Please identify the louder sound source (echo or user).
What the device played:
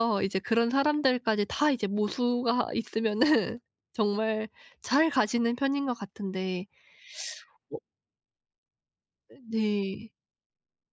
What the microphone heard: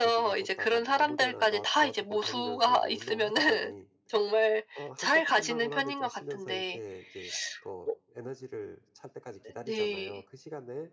echo